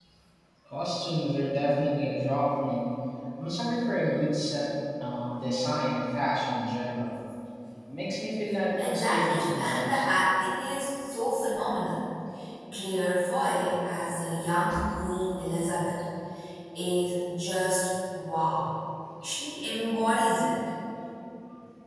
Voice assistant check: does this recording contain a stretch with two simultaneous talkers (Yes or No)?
Yes